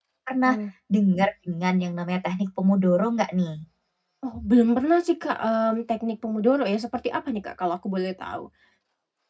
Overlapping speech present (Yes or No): No